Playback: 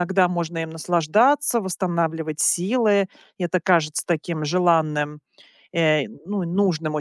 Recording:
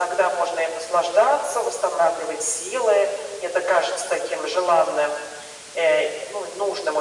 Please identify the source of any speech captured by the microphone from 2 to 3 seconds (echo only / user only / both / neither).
echo only